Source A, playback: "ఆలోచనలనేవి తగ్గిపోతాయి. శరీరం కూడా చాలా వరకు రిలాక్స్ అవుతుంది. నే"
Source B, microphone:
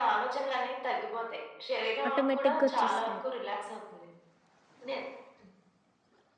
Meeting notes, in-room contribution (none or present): present